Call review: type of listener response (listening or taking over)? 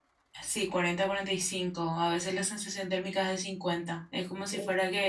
listening